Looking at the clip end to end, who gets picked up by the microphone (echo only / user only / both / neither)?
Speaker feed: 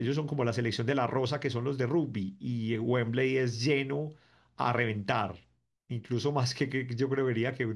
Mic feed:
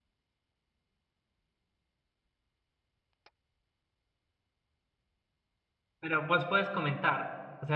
user only